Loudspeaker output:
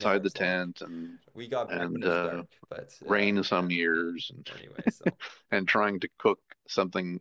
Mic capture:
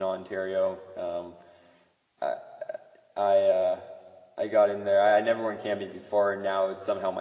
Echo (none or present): none